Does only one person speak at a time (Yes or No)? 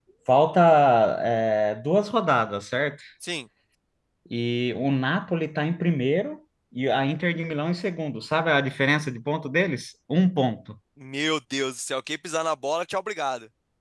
Yes